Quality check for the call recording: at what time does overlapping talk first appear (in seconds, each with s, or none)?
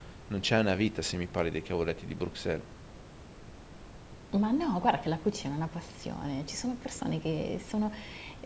none